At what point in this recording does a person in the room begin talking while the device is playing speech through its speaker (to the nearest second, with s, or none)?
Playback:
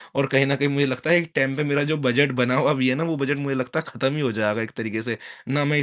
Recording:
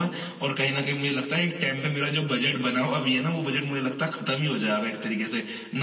none